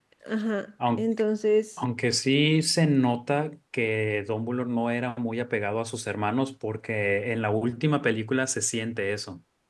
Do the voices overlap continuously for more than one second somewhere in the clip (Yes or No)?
No